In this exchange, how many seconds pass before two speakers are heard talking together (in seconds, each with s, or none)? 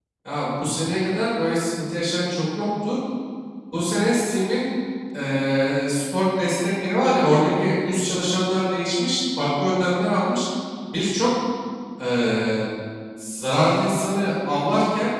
none